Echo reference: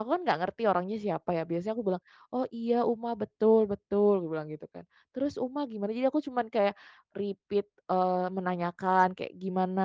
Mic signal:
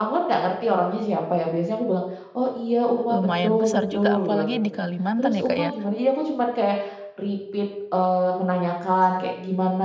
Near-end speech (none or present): present